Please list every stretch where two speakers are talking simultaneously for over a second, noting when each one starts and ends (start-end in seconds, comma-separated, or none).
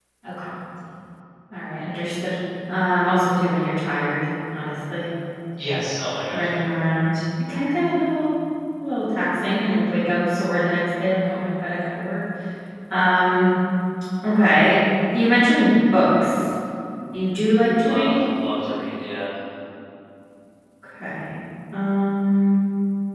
none